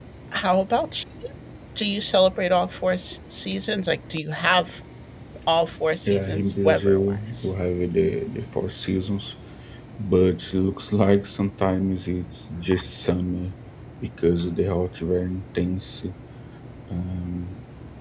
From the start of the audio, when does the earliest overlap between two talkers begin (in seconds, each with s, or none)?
6.1 s